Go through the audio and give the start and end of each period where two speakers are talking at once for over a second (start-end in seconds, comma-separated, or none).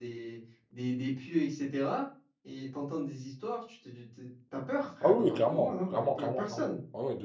5.0-6.7